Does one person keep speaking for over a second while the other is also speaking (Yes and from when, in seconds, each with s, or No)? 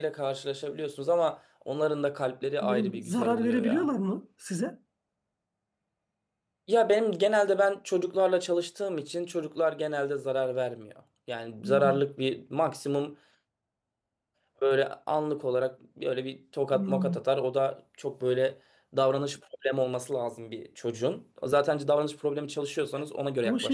Yes, from 2.6 s